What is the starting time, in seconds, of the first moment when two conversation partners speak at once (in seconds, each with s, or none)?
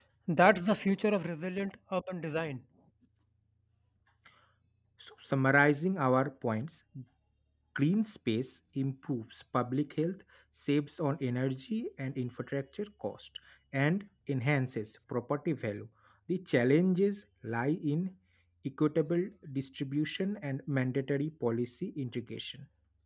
none